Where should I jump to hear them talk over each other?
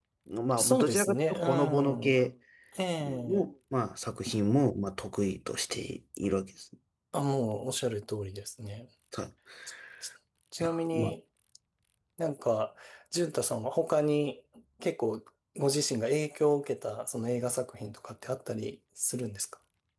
0.6 s

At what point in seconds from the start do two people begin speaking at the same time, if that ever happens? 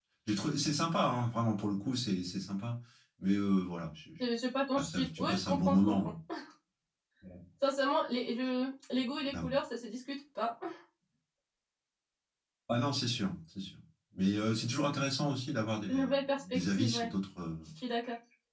4.8 s

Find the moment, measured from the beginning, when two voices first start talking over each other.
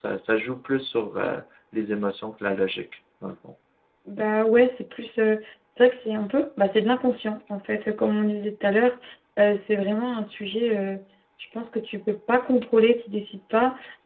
none

